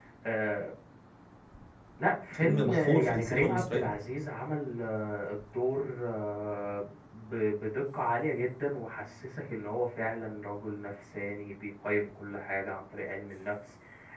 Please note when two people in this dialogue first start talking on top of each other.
2.3 s

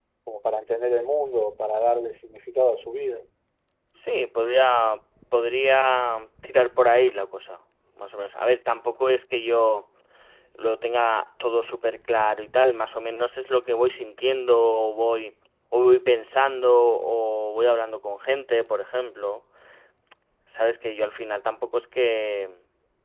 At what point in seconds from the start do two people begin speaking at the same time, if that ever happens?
none

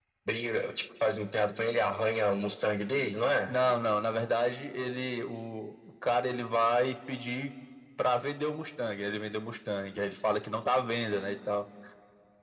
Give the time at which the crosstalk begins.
none

